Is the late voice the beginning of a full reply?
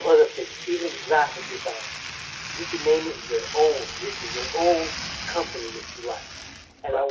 No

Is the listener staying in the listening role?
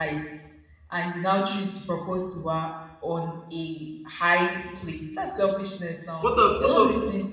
No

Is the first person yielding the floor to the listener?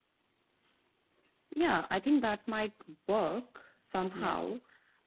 No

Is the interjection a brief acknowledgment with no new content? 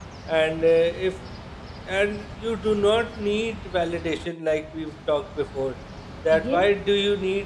Yes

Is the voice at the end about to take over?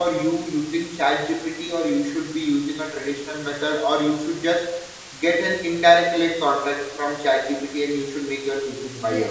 Yes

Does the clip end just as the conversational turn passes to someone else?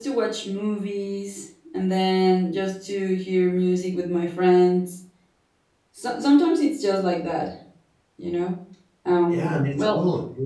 Yes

